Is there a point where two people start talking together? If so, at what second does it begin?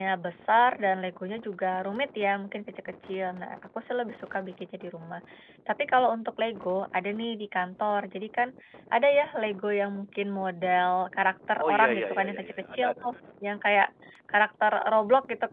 12 s

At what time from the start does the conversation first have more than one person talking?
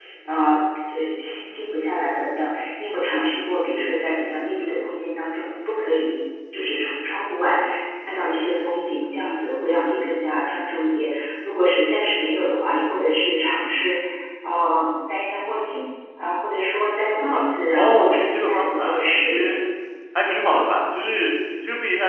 18 s

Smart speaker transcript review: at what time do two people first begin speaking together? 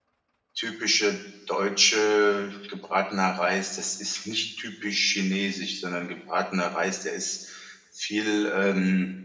none

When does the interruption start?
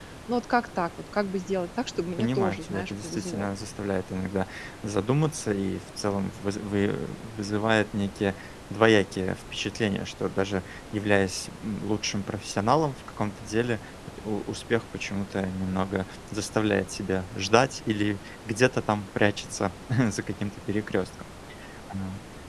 2 s

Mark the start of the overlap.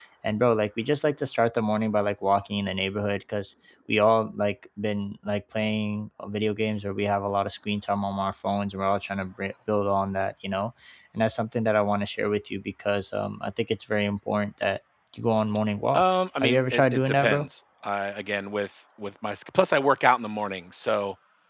16 s

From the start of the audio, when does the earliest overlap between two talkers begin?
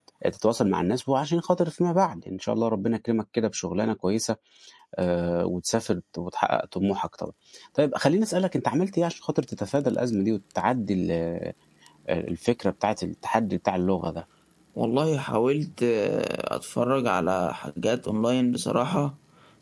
none

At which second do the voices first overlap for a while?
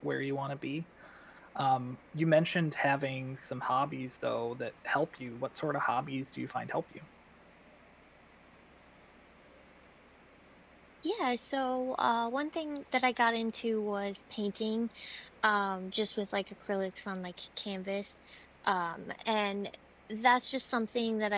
none

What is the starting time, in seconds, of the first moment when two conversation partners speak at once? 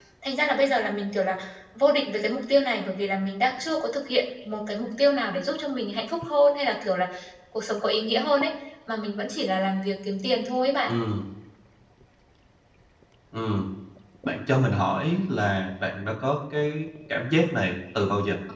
none

